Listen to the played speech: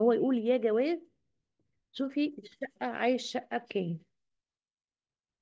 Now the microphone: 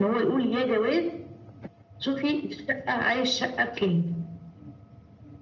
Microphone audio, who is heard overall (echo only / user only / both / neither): echo only